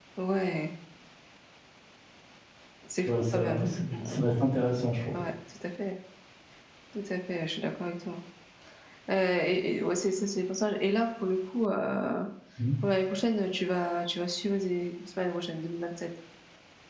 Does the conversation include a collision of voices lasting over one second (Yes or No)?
Yes